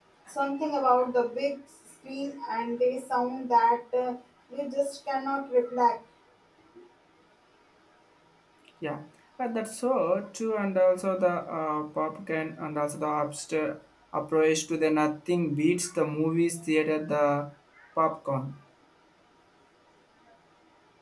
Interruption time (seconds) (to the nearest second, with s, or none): none